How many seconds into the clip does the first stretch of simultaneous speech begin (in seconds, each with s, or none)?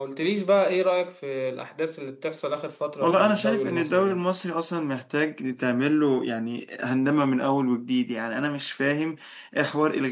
3.0 s